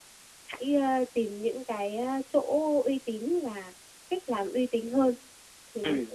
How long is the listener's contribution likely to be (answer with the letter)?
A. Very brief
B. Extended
B